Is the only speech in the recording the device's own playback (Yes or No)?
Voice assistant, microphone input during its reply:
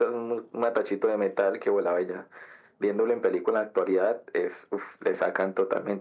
Yes